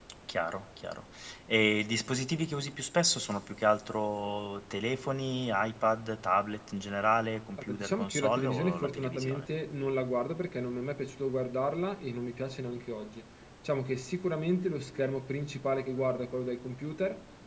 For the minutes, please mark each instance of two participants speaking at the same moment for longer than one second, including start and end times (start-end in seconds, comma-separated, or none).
7.6-9.5